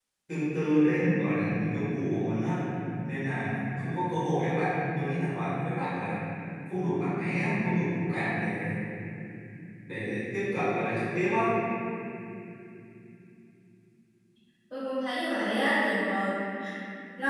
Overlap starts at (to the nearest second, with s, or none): none